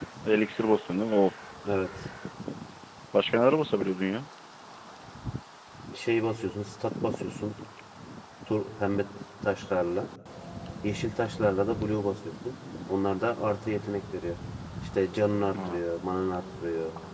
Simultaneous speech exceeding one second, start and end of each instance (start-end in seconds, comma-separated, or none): none